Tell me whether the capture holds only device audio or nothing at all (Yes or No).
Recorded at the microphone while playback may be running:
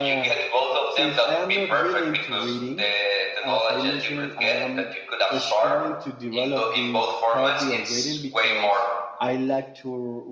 No